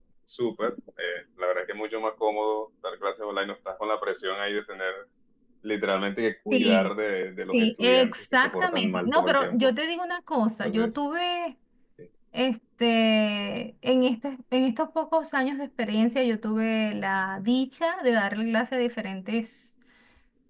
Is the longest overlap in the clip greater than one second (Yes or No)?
Yes